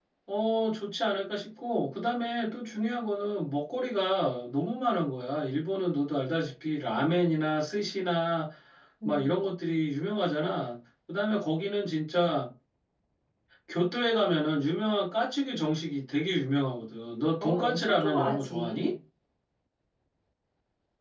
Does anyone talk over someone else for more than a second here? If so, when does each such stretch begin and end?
17.4-18.9

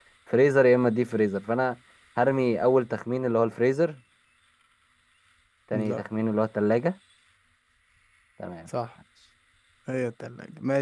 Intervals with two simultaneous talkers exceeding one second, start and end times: none

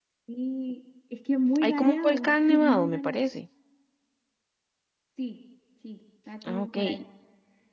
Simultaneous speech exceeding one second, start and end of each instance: 1.6-3.2

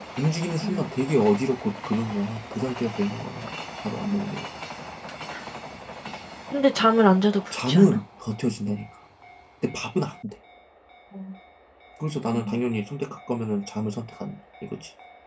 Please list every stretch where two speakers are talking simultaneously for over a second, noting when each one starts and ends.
none

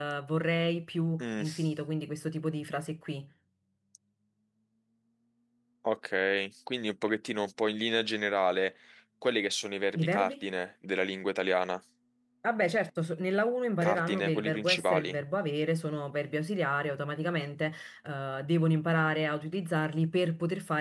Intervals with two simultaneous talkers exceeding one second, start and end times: 13.8-15.2

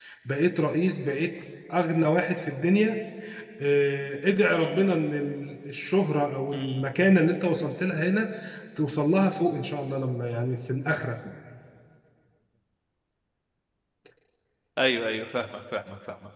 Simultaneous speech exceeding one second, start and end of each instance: none

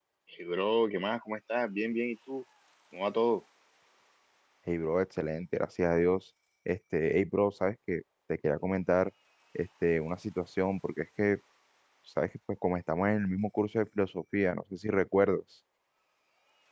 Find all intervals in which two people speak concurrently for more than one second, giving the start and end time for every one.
none

